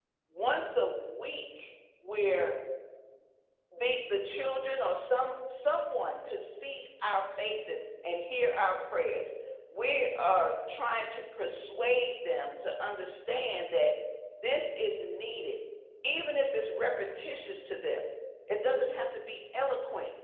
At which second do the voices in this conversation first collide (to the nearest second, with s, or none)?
none